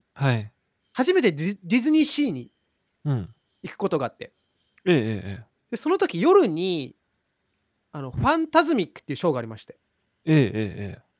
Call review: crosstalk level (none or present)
none